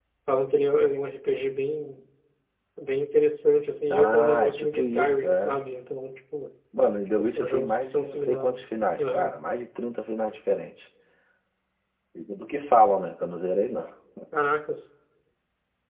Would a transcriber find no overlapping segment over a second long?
No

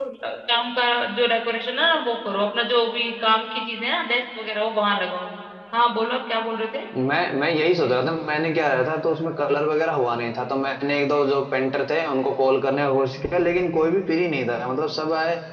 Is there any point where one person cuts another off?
No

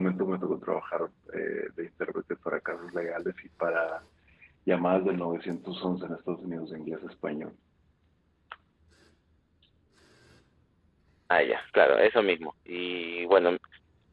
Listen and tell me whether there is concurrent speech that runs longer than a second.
No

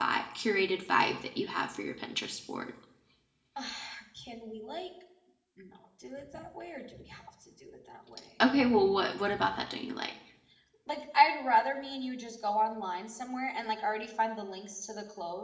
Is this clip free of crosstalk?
Yes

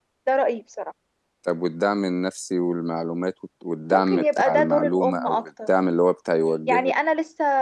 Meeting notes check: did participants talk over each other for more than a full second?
Yes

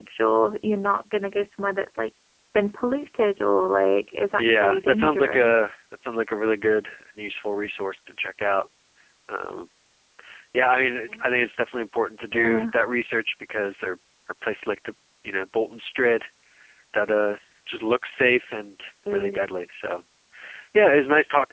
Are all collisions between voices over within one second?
No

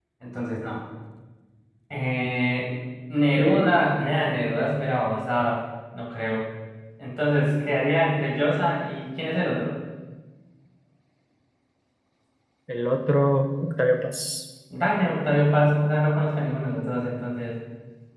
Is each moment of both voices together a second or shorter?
Yes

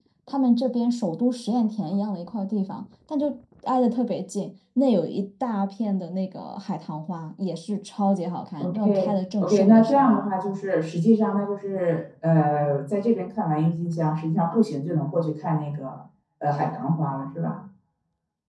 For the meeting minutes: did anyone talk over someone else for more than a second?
Yes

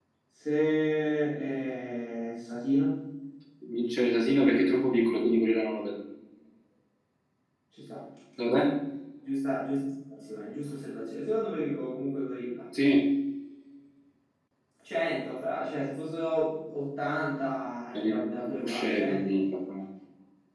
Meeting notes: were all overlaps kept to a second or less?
No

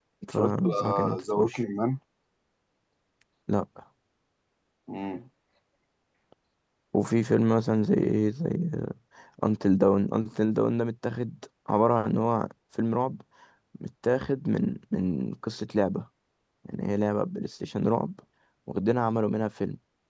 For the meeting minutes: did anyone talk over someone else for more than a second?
Yes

